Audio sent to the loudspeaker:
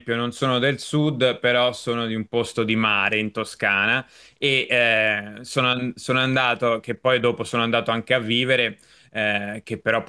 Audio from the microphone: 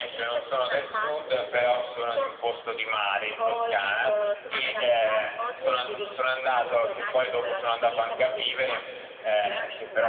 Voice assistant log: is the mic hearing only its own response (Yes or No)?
No